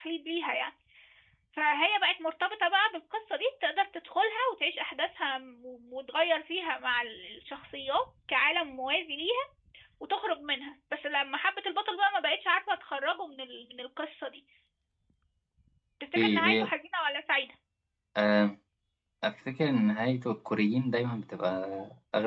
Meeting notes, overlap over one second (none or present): none